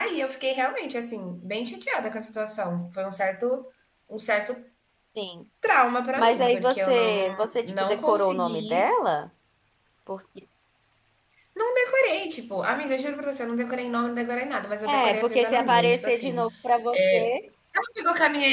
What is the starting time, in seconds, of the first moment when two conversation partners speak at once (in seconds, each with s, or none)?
6.1 s